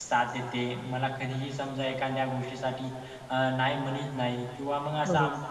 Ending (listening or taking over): listening